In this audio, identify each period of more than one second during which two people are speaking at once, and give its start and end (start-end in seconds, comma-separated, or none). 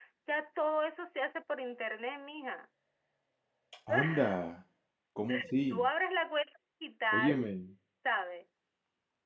none